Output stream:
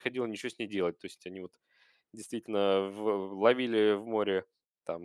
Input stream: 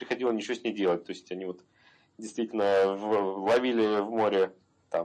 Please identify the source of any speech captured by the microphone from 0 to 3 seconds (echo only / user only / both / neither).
echo only